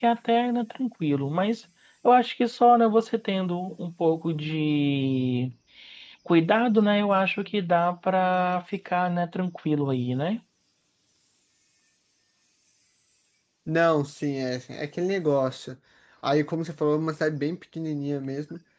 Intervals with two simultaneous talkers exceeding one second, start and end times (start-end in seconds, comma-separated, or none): none